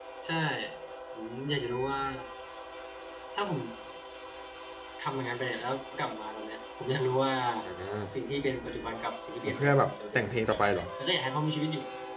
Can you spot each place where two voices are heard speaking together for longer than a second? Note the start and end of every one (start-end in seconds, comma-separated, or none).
9.6-10.8